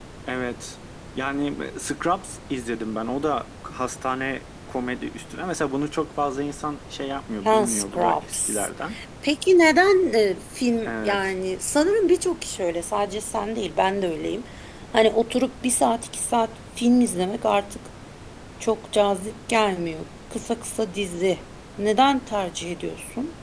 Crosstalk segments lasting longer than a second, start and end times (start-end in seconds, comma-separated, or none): 7.5-8.7